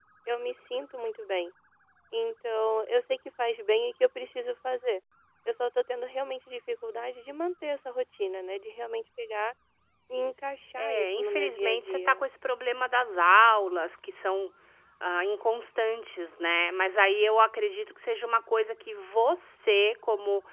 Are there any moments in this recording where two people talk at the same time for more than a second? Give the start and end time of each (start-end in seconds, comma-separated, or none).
10.8-12.2